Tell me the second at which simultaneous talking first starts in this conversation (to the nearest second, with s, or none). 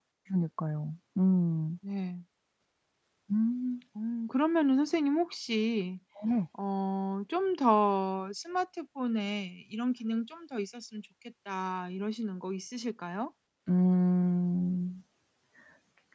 none